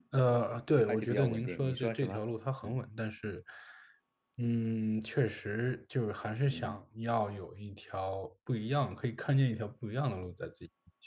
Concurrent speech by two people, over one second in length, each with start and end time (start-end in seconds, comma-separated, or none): 0.9-2.2